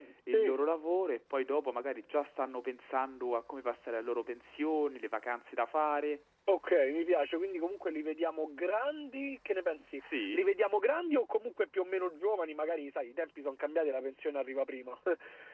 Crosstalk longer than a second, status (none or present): none